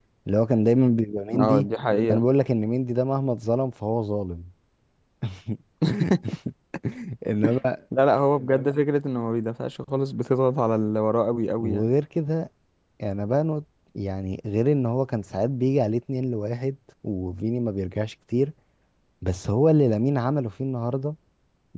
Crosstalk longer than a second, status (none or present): none